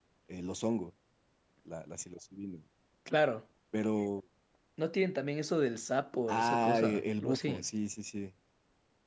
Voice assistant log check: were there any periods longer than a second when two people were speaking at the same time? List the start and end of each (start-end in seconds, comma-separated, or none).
6.3-7.6